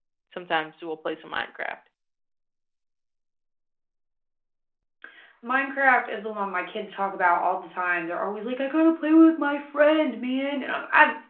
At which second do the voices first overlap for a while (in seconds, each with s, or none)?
none